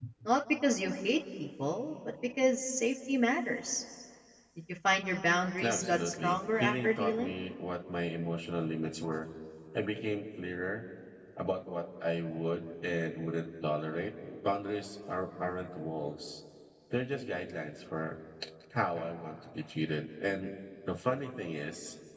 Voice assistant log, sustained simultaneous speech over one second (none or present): present